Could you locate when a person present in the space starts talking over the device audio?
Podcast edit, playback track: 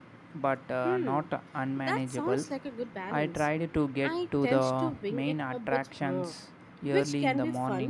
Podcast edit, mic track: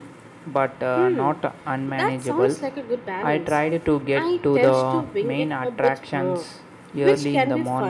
none

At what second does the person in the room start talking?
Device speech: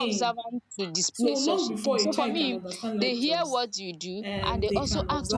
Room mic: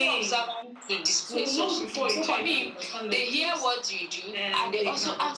none

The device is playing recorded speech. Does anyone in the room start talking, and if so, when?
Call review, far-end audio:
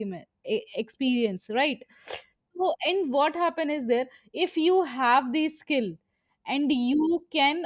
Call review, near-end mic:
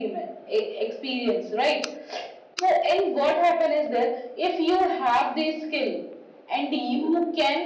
none

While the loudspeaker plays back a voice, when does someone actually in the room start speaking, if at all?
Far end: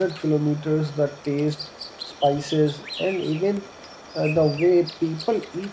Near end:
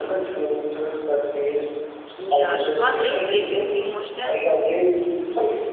2.2 s

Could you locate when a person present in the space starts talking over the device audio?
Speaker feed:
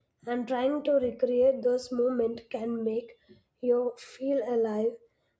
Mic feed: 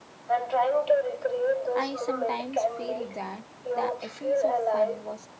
1.7 s

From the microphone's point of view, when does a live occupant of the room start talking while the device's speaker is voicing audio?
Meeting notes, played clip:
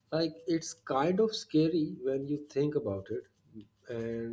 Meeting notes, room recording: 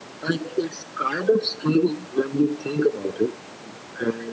none

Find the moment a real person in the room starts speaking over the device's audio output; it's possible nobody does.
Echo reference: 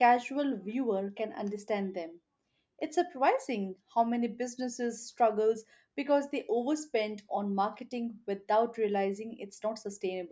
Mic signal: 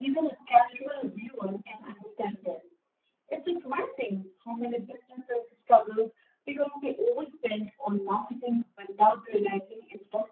none

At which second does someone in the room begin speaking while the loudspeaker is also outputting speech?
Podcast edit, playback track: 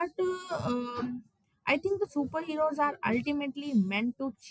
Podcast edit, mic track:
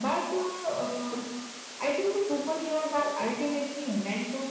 none

